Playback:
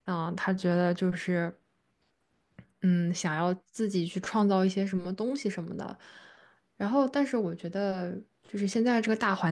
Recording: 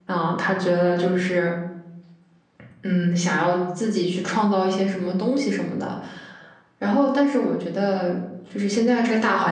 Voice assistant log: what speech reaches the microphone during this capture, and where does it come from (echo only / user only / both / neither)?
echo only